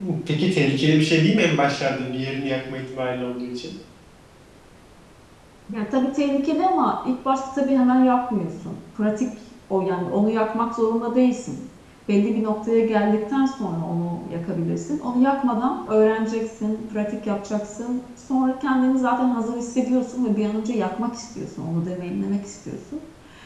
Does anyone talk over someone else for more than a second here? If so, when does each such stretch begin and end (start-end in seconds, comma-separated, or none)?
none